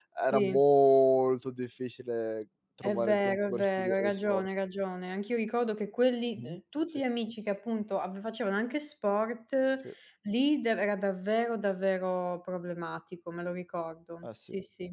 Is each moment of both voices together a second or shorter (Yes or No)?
No